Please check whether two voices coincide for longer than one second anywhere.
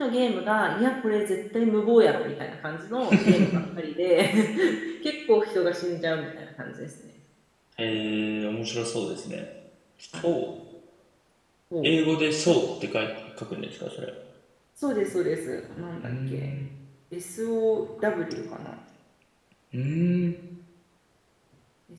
No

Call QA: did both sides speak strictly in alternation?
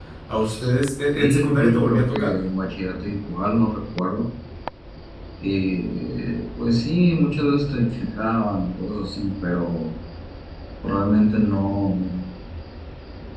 No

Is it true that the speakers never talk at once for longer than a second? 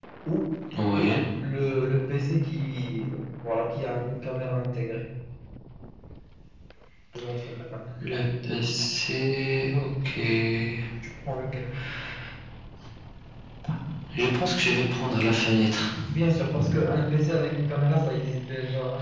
Yes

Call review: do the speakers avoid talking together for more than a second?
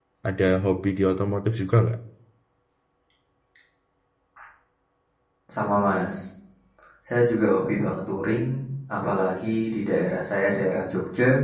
Yes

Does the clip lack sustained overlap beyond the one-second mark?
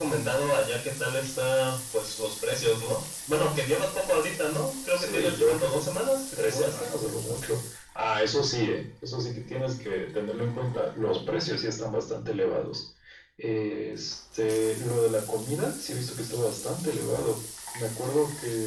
No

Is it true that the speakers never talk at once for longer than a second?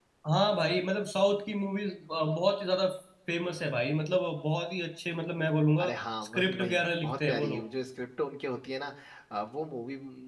No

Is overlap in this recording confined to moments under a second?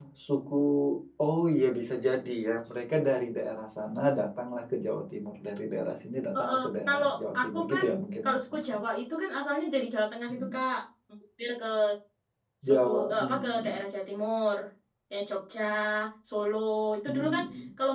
No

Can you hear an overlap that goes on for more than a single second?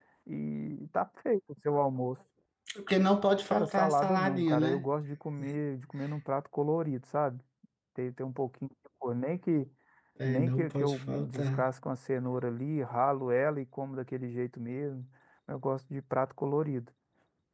Yes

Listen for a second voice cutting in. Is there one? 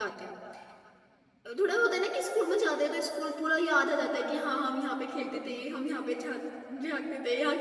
No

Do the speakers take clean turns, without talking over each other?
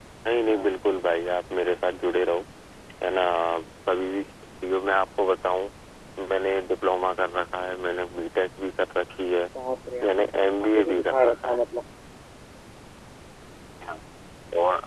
No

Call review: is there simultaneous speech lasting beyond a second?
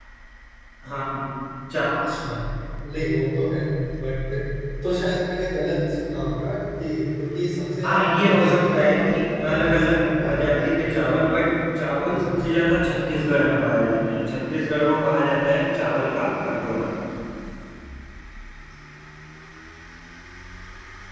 Yes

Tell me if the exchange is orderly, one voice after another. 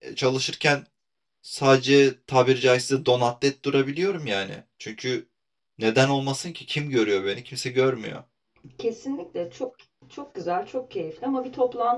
Yes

